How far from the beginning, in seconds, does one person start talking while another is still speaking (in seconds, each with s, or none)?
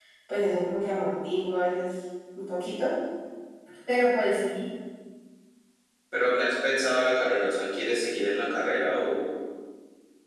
none